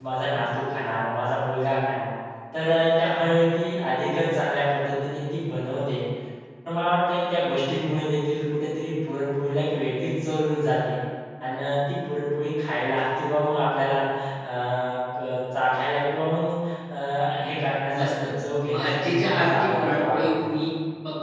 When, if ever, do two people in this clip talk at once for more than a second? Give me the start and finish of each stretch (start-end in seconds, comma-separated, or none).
18.7-20.3